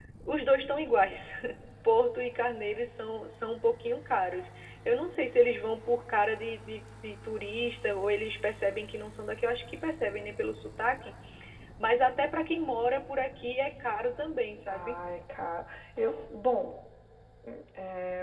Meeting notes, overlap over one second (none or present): none